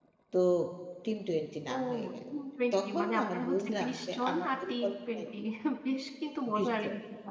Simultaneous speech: Yes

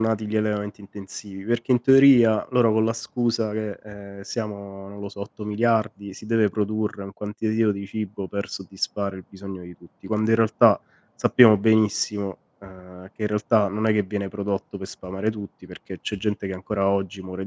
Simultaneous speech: No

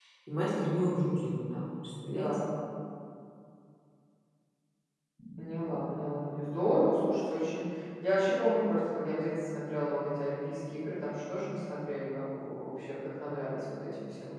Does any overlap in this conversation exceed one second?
No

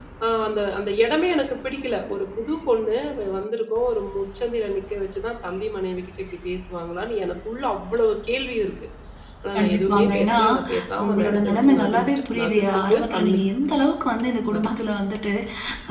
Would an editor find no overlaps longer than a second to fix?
No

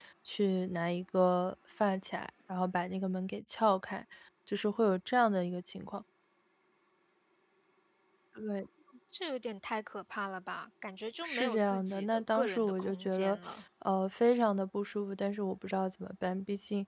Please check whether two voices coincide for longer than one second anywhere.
Yes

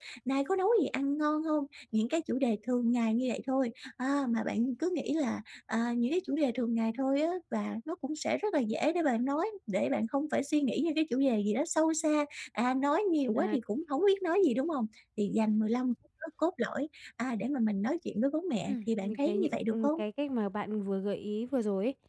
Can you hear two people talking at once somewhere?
Yes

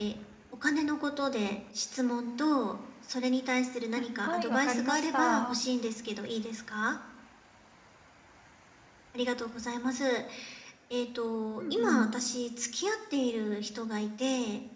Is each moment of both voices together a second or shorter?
No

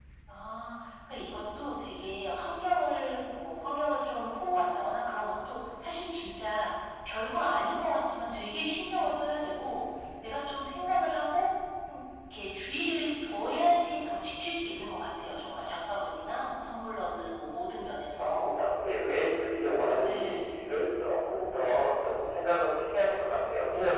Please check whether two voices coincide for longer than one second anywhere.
No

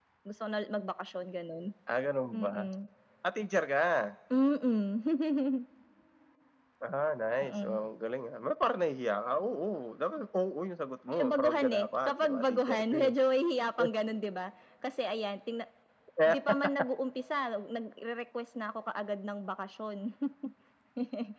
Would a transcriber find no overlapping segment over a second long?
No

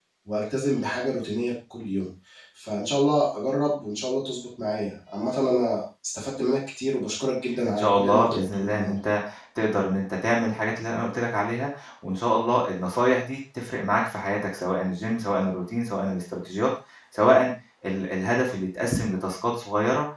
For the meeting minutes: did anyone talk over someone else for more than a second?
Yes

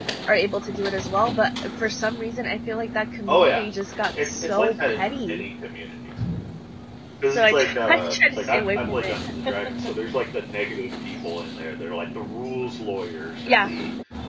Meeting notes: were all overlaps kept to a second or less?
No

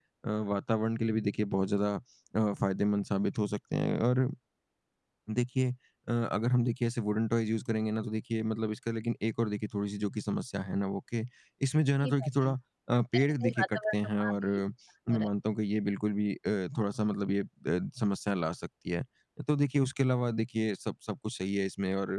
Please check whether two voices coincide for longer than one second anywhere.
Yes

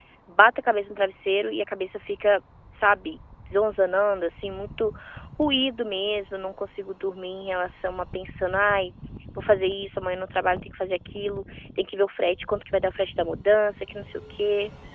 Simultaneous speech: No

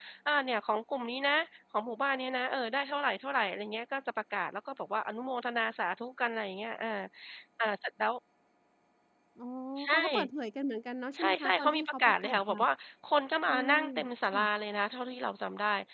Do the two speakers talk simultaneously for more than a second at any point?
Yes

